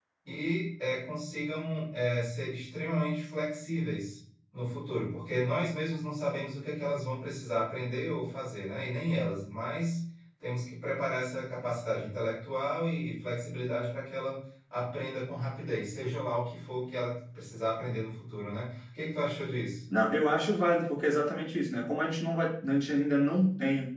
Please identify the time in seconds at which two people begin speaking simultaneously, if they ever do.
none

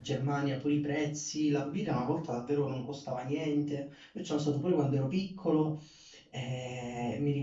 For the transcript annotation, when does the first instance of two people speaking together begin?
none

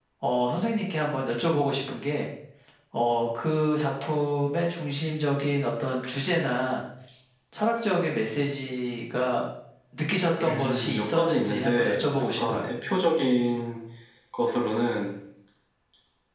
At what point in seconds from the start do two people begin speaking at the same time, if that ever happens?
10 s

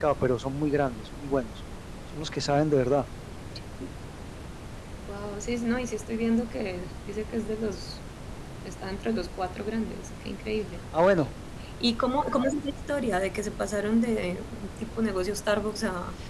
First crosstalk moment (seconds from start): none

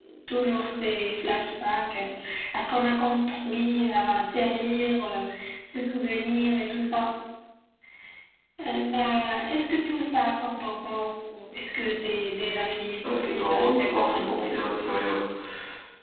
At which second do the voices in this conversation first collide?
13 s

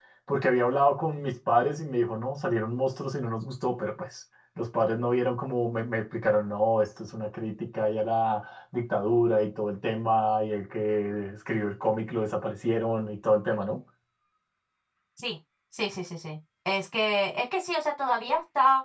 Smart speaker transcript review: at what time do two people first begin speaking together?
none

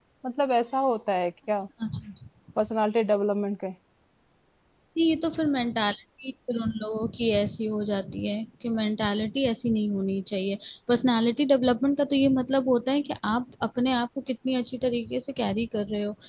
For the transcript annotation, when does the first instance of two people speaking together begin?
none

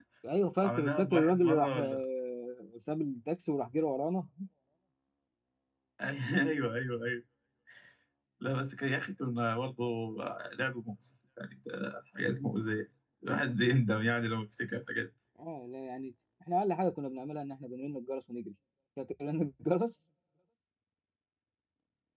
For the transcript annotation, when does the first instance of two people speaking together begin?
1 s

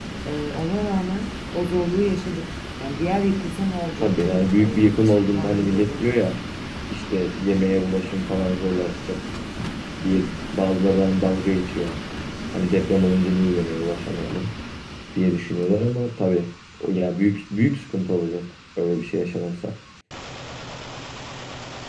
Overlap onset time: 4 s

